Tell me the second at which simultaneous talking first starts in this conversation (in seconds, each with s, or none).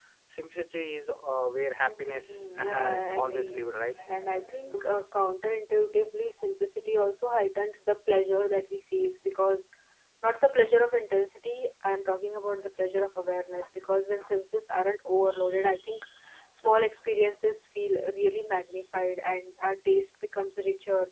1.8 s